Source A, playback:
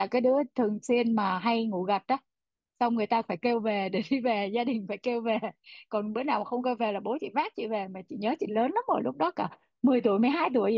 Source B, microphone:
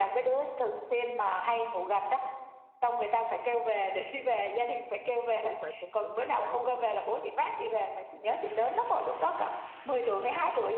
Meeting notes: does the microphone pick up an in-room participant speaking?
Yes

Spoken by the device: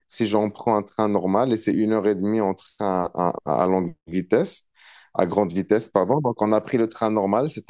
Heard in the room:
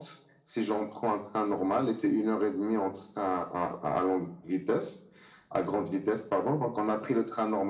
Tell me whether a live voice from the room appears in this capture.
No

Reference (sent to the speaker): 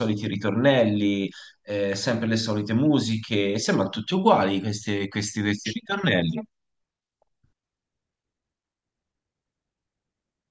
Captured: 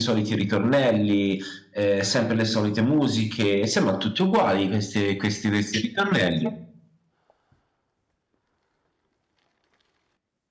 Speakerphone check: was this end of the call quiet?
Yes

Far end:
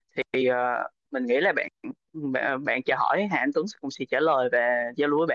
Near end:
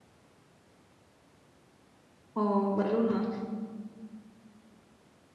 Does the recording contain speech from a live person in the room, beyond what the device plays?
Yes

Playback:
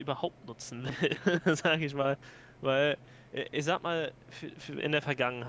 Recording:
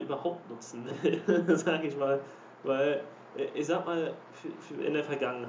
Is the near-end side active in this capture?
No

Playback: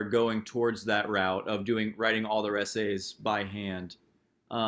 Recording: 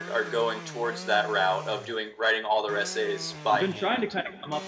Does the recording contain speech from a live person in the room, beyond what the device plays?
Yes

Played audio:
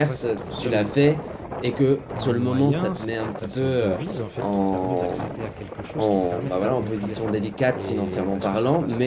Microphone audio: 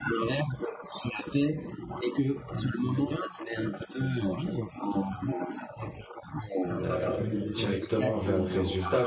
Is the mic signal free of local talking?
No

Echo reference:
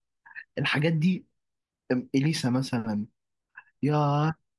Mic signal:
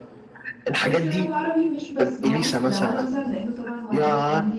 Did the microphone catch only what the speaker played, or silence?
No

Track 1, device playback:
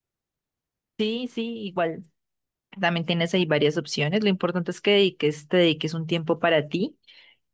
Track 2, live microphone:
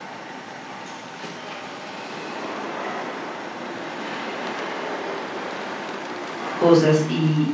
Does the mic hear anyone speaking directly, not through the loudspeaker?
Yes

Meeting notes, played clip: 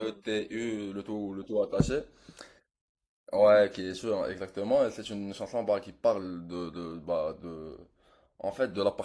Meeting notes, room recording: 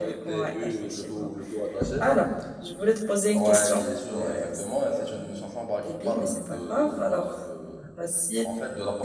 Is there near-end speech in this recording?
Yes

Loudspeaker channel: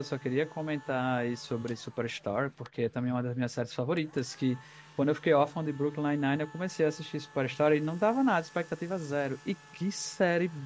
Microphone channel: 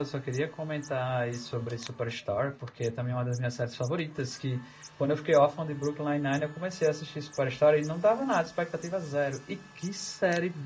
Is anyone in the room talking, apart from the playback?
No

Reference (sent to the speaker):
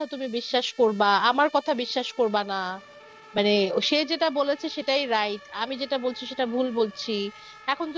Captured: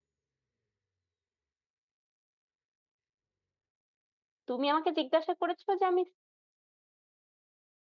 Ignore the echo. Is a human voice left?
Yes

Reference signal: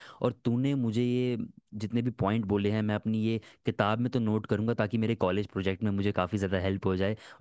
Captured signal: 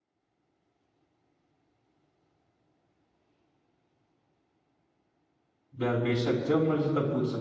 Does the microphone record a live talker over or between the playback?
Yes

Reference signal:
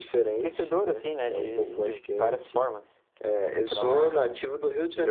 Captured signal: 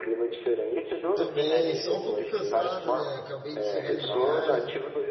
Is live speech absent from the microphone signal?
No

